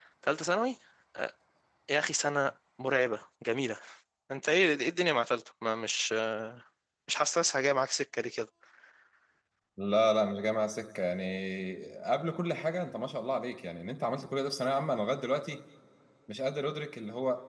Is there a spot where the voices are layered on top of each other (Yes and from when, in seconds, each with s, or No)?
No